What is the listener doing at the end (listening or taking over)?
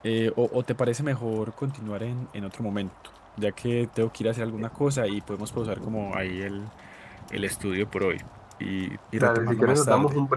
taking over